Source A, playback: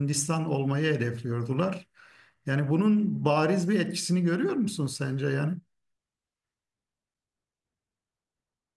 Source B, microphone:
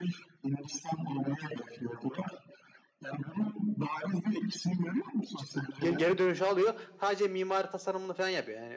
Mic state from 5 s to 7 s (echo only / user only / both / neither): both